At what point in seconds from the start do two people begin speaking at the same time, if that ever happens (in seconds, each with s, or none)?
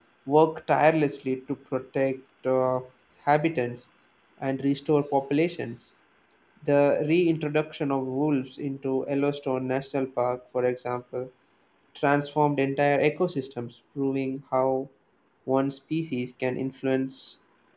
none